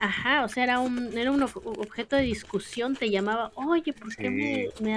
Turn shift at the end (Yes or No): No